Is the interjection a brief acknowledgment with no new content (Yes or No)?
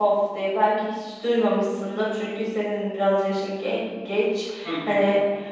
Yes